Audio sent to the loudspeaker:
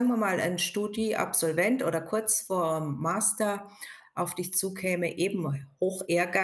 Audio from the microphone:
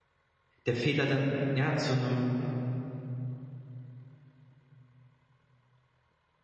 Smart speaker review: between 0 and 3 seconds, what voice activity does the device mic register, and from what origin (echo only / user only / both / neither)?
user only